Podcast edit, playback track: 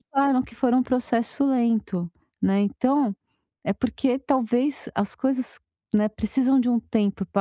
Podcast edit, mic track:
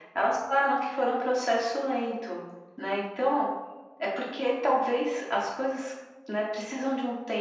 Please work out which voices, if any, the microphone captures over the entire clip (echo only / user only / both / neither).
echo only